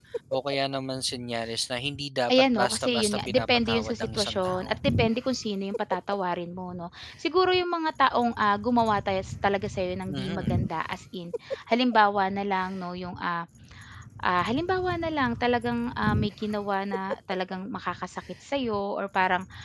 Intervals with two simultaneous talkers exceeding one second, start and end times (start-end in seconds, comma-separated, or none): 2.3-4.7